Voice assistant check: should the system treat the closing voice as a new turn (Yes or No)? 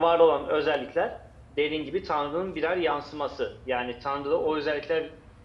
No